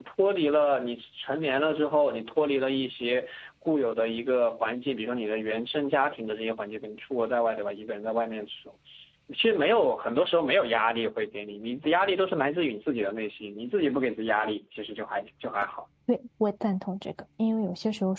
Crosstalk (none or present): none